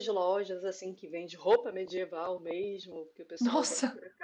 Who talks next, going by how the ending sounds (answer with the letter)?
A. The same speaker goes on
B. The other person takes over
A